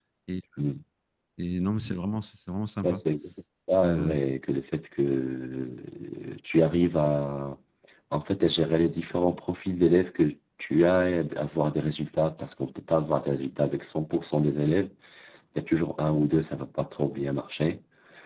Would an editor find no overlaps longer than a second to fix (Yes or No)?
Yes